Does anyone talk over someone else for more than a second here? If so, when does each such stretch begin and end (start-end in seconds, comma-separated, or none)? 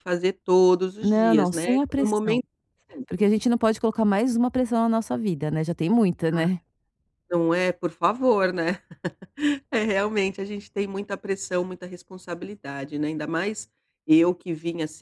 1.0-2.4